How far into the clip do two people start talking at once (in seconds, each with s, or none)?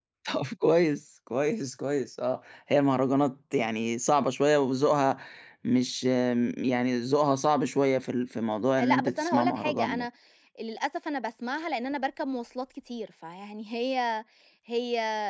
8.8 s